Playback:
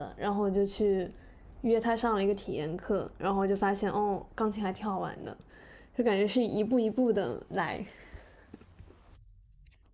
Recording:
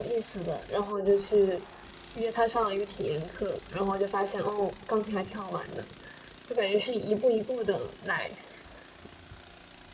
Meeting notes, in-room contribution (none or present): none